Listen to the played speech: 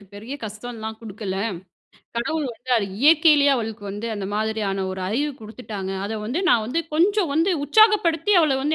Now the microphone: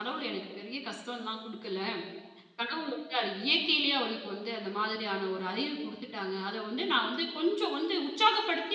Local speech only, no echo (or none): none